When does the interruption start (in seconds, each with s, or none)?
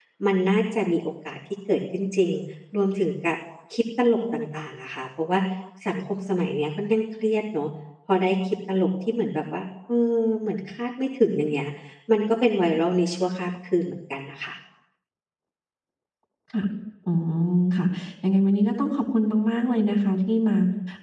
none